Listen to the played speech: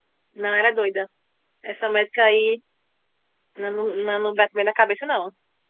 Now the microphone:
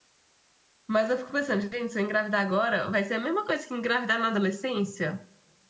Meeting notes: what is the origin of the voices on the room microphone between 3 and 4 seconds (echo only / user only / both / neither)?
user only